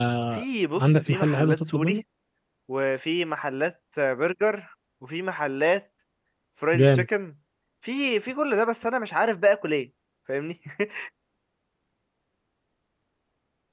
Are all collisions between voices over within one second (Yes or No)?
No